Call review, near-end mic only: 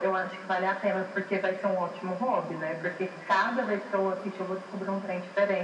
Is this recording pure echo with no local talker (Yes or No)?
Yes